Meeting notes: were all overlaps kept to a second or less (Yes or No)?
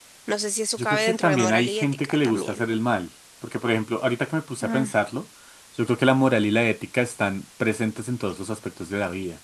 No